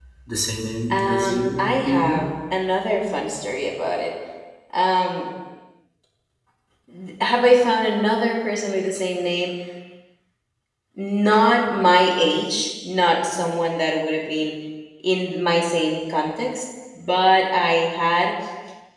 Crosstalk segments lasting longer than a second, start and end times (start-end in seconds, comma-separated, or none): 0.9-2.2